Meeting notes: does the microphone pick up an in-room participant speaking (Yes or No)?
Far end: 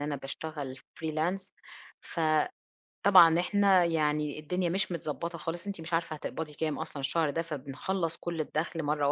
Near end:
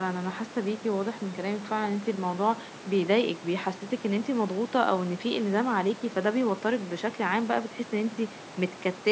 Yes